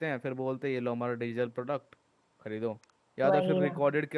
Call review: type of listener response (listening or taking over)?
listening